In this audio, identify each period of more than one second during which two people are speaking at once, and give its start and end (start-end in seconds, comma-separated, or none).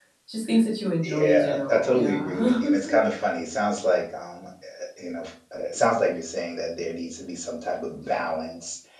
1.0-2.6